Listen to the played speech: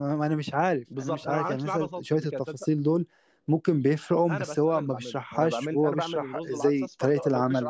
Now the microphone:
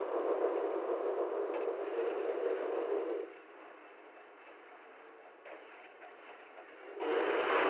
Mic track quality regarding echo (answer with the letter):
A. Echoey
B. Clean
B